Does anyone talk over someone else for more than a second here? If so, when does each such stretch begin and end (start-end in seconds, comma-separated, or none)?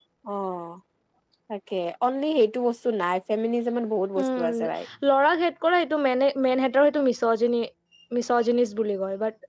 none